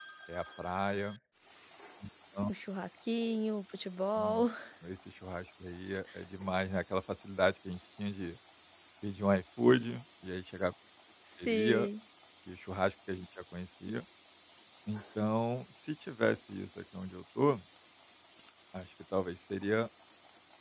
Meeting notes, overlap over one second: none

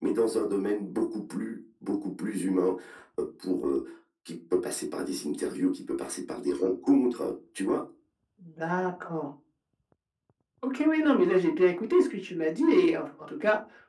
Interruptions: none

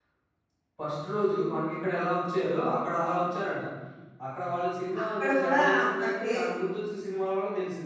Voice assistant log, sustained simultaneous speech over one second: present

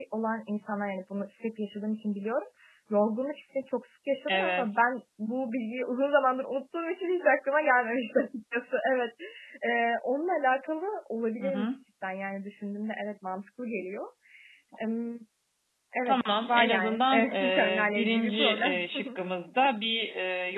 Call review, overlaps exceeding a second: present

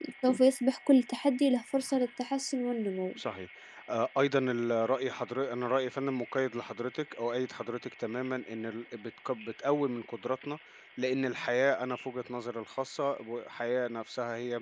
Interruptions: none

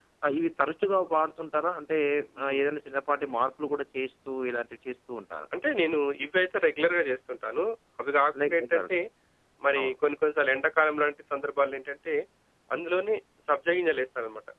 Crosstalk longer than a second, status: none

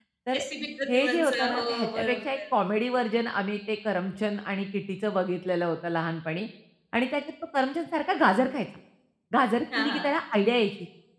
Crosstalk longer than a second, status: present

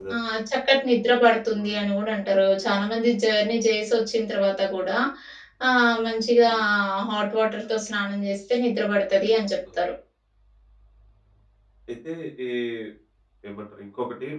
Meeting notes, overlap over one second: none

